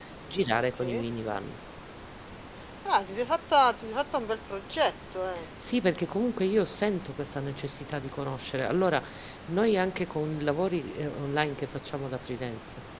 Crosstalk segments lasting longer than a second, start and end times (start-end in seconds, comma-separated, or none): none